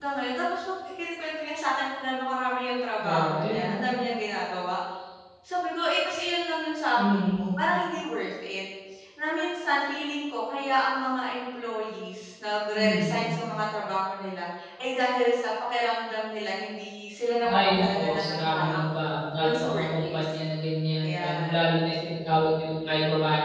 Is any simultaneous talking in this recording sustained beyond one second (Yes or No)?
Yes